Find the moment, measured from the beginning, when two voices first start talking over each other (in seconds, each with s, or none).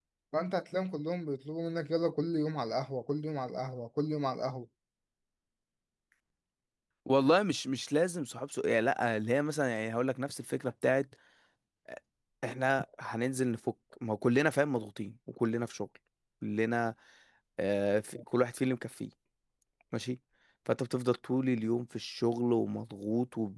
none